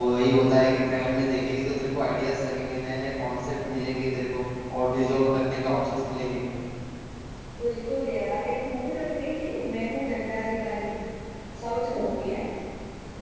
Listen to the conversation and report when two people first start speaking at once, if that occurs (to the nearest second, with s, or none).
none